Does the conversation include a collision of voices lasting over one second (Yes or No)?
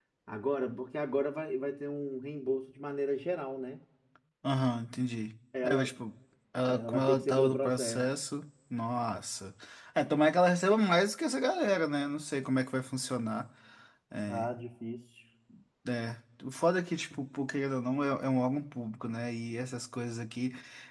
Yes